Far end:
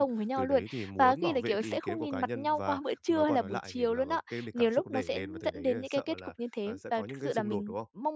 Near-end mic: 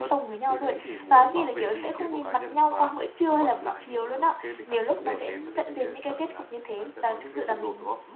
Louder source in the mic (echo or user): echo